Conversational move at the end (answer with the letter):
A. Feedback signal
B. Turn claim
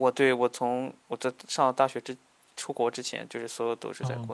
B